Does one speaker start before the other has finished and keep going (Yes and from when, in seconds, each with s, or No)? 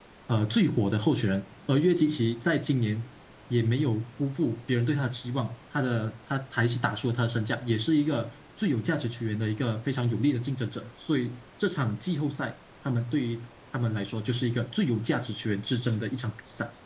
No